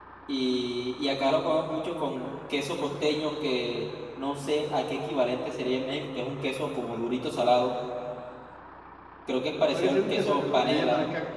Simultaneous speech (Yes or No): Yes